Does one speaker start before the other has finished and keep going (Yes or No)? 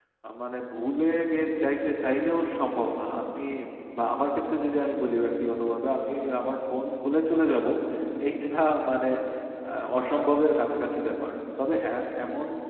No